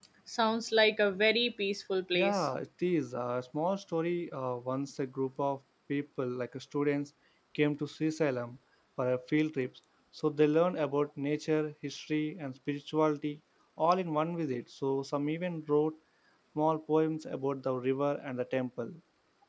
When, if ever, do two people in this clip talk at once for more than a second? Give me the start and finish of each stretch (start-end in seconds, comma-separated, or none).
none